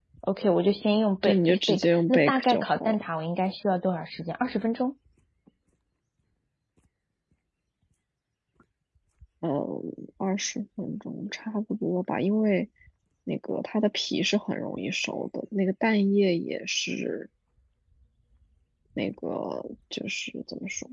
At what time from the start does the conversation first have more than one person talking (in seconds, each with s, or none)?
1.2 s